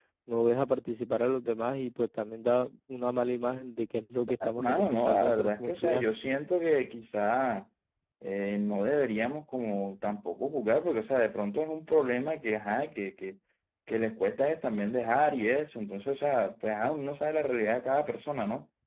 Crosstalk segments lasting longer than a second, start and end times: 4.2-6.1

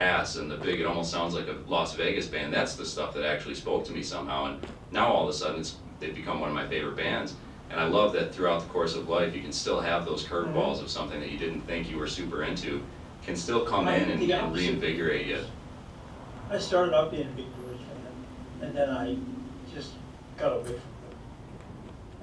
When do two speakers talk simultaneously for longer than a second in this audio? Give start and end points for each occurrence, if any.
13.8-15.4

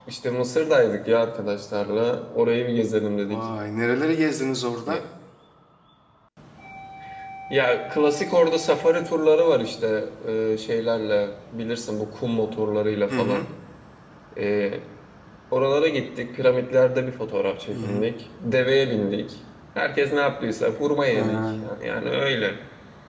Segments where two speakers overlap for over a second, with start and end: none

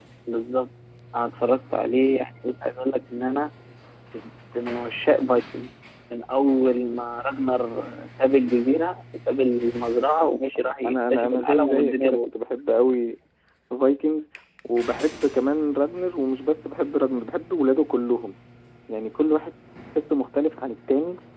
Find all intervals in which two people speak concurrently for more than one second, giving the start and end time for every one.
10.6-12.3

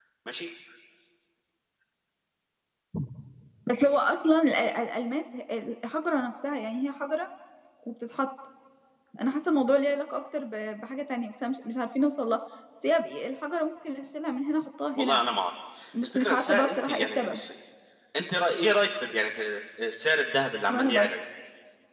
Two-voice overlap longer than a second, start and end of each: 16.0-17.4

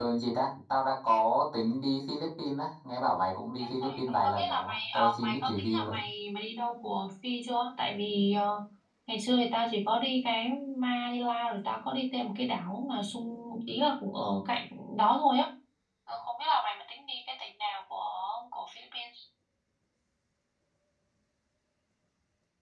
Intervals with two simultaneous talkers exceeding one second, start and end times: 3.6-6.0

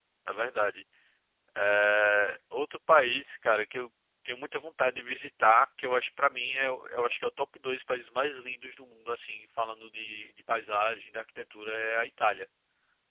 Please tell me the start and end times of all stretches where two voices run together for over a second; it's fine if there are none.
none

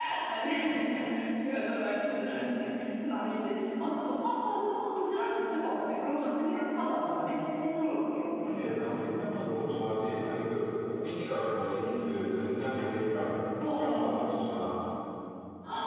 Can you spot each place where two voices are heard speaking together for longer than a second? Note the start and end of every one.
none

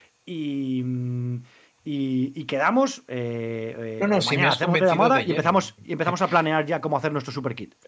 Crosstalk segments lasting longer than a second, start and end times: 4.0-5.7

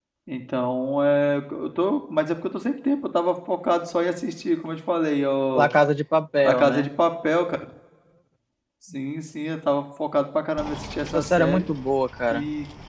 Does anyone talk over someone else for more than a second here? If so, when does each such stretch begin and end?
none

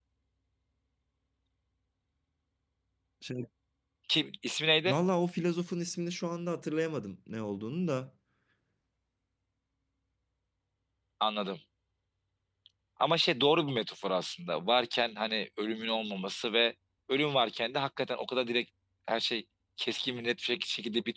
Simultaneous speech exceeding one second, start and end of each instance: none

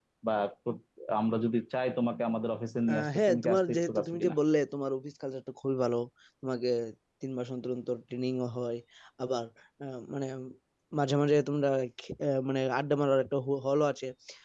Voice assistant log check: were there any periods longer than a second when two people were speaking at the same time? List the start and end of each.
2.9-4.4

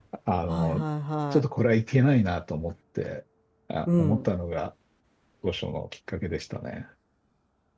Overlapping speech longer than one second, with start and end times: none

